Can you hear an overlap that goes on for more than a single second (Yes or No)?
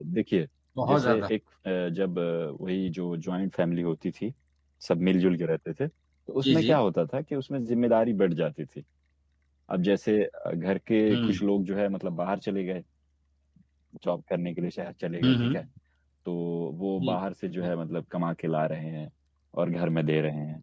No